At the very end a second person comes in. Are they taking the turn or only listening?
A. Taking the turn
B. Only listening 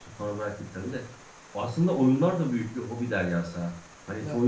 B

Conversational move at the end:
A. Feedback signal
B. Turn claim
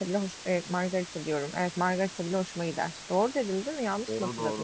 B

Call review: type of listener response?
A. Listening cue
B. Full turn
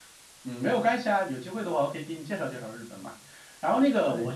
A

